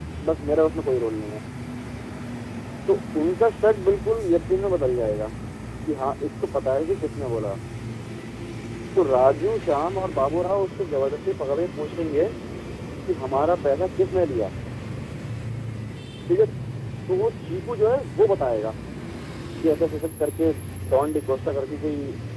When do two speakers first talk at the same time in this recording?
none

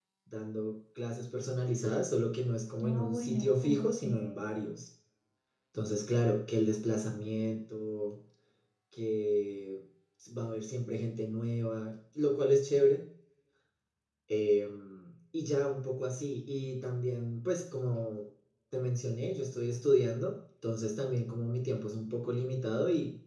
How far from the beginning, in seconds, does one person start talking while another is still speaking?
2.8 s

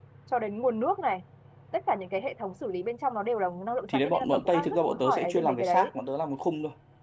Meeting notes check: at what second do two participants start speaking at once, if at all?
3.9 s

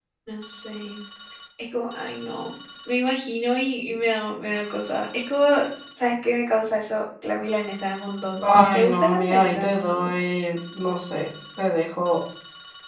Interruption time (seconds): 8.4 s

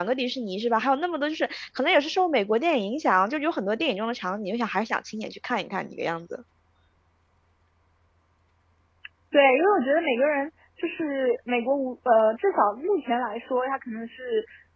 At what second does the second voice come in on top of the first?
none

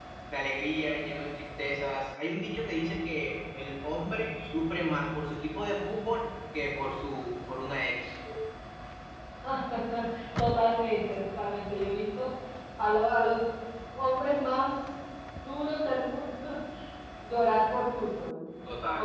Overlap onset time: none

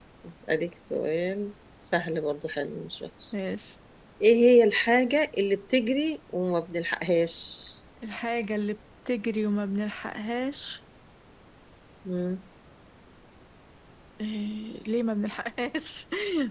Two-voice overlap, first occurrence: none

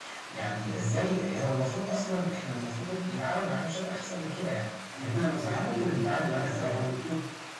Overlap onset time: 4.9 s

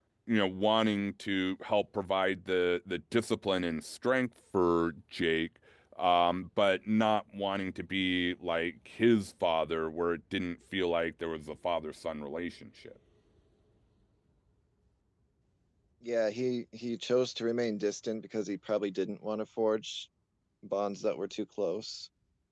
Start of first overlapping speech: none

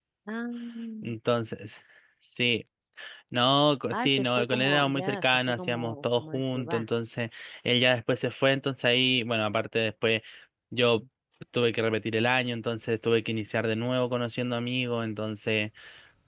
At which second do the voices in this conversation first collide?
3.9 s

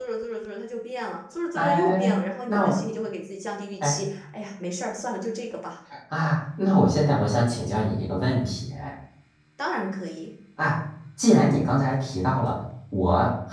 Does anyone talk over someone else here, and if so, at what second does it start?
1.6 s

